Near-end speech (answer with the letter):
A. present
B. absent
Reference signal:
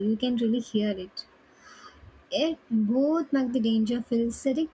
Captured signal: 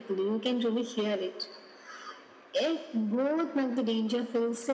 B